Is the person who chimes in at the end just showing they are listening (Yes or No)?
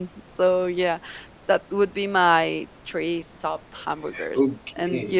No